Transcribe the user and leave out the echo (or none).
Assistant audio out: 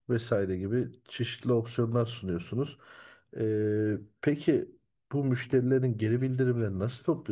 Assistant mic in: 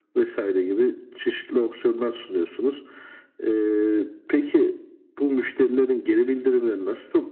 none